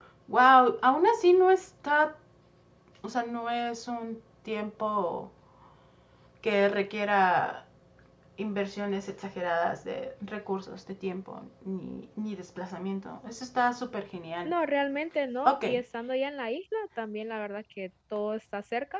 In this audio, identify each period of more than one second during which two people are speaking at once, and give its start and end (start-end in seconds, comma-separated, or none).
none